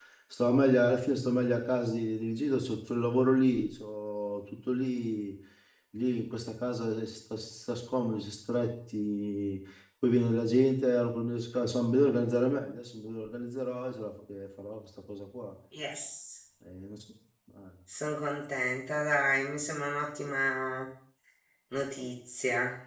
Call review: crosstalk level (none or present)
none